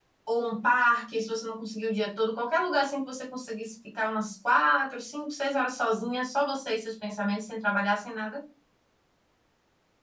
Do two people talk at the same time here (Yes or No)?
No